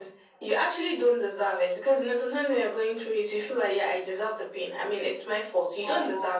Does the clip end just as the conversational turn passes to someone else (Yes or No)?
No